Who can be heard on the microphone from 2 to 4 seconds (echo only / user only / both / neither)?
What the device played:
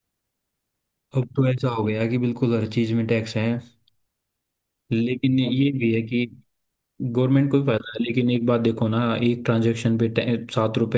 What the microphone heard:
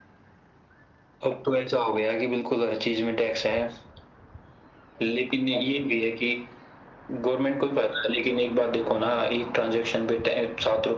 echo only